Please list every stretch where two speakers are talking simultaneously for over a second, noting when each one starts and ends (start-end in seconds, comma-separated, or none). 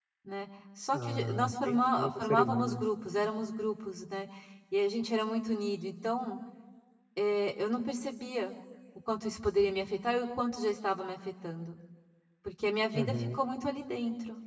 0.9-2.8